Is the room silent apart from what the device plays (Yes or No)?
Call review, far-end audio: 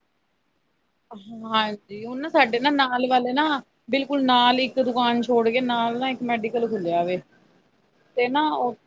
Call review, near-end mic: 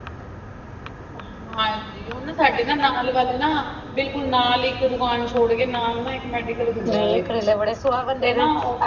No